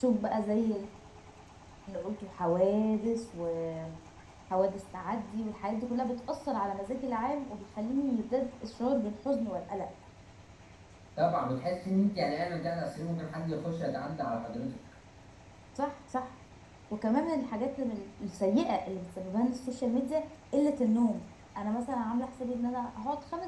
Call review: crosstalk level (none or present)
none